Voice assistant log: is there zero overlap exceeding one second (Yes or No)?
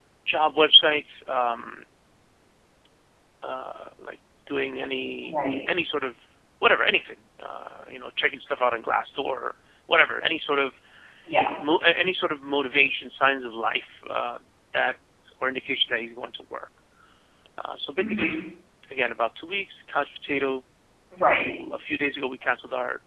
Yes